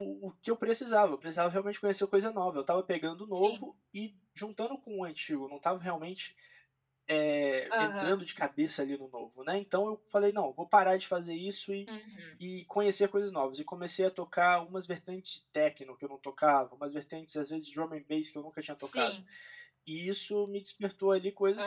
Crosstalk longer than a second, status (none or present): none